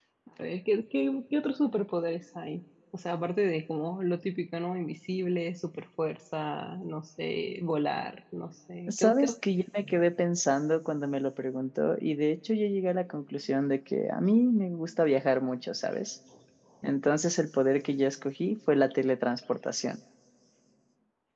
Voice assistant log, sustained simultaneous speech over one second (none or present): none